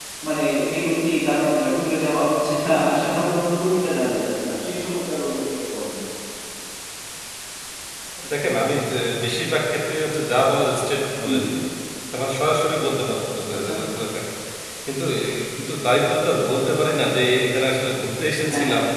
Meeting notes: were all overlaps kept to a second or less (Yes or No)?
Yes